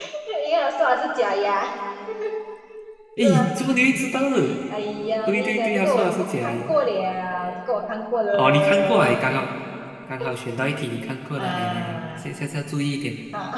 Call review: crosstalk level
present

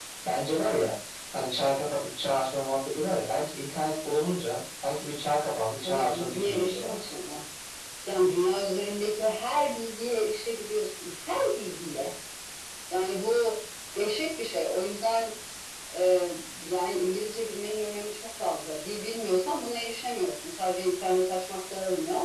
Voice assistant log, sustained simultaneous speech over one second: present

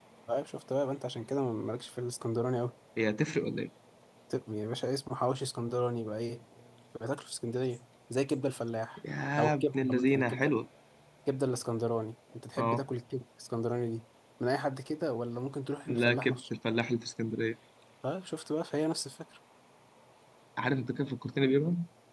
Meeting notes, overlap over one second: present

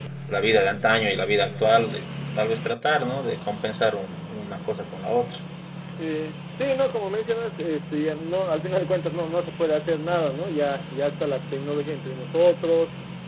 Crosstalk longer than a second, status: none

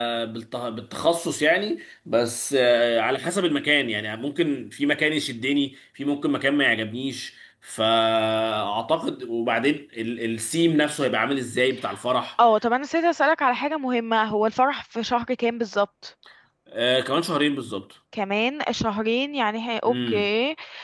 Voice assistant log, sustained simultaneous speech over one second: none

